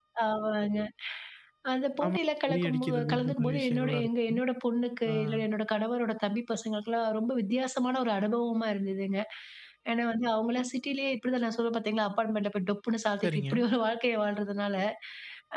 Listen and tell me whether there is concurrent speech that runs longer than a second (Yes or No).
Yes